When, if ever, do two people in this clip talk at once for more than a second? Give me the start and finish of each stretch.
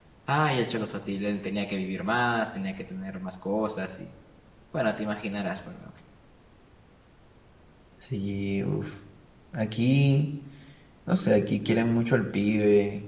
none

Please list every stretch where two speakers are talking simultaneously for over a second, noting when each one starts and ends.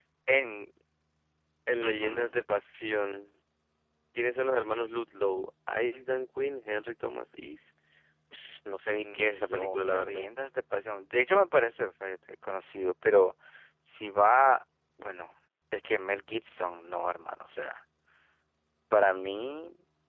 8.9-10.3

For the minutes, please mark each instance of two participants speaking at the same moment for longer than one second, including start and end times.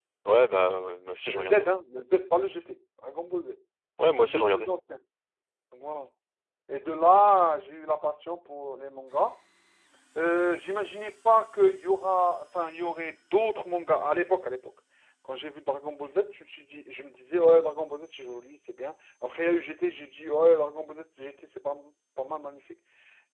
none

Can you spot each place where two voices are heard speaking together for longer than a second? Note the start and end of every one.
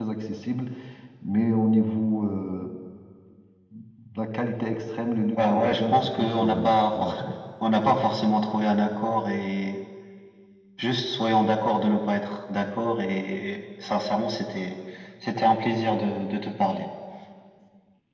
5.4-7.2

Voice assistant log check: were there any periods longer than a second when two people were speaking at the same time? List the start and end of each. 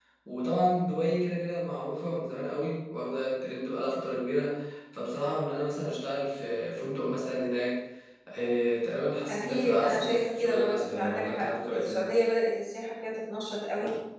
9.3-12.1

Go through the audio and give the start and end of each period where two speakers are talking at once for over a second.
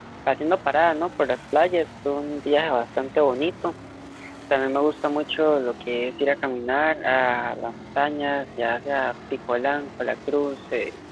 none

